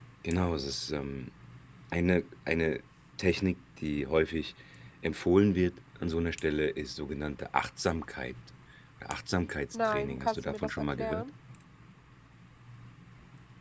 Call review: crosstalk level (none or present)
present